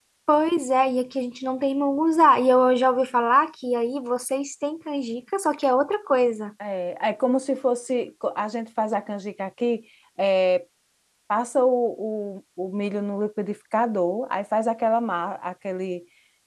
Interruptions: none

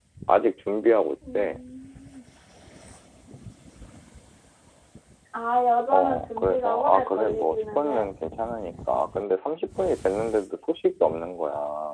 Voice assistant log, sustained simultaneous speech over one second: present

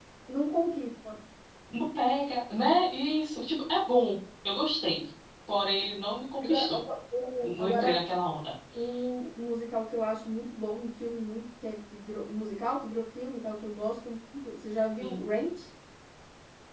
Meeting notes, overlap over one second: none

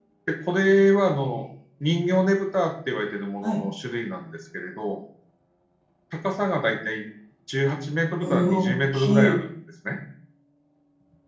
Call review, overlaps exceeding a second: present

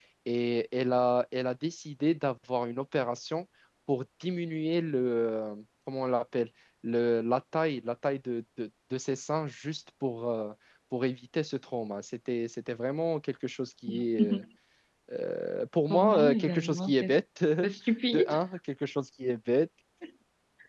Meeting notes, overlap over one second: present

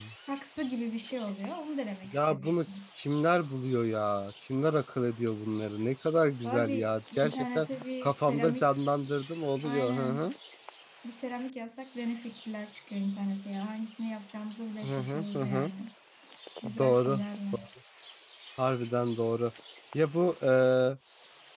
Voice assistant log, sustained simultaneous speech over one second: present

